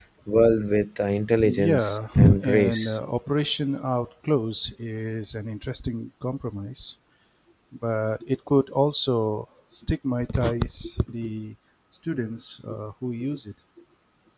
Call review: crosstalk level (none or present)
present